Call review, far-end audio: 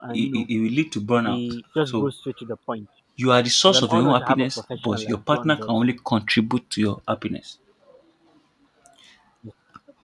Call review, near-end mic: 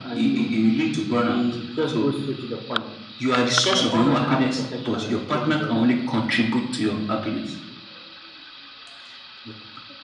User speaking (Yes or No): No